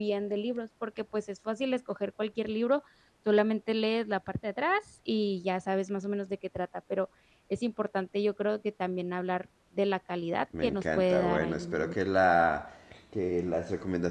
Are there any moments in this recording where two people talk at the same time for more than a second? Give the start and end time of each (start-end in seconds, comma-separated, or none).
10.6-11.9